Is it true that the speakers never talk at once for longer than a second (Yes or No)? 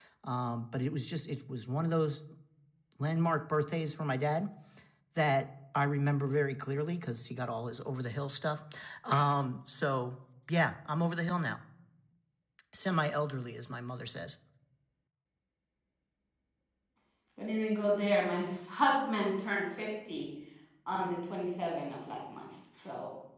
Yes